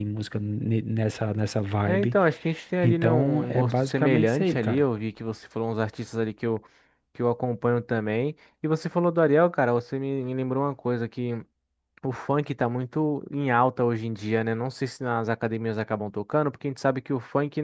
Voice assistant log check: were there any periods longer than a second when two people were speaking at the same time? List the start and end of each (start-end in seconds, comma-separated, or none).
2.8-4.8